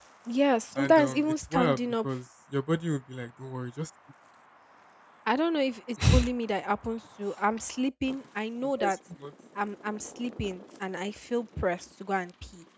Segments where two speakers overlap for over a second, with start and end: 0.8-2.1

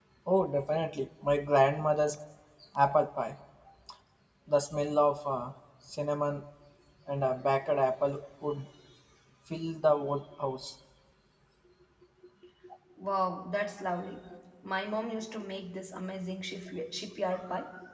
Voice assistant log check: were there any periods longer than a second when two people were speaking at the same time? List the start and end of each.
none

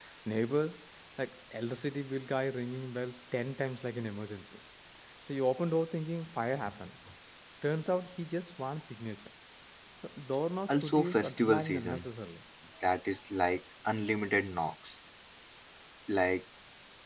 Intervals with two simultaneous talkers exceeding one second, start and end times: 10.7-12.1

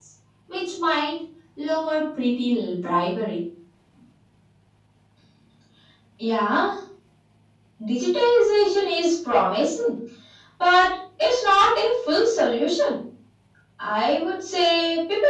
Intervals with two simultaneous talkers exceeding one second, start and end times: none

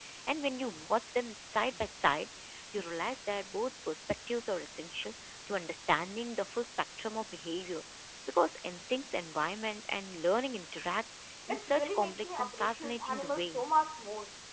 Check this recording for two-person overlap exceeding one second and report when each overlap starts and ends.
11.5-13.6

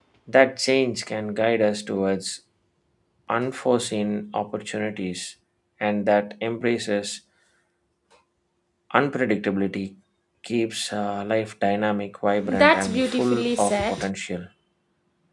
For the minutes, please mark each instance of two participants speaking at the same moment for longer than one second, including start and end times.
12.5-14.1

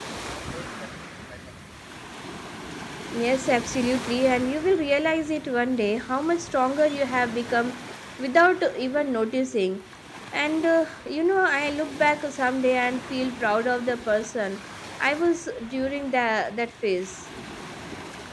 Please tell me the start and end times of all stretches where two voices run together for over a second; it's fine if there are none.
none

